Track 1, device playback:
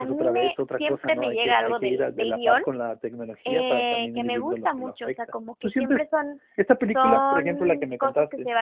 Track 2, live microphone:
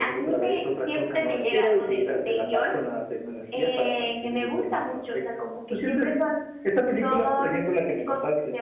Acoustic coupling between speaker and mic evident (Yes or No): Yes